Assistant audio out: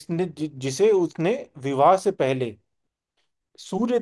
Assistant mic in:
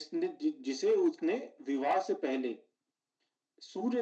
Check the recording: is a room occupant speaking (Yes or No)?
No